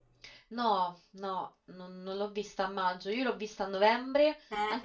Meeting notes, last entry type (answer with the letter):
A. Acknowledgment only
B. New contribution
A